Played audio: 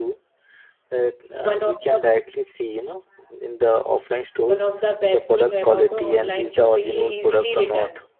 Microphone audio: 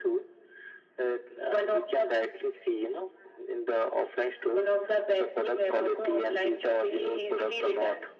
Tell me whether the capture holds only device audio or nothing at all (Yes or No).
Yes